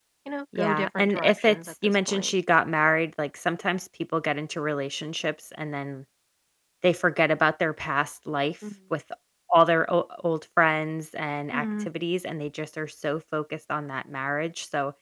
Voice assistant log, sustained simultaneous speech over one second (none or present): present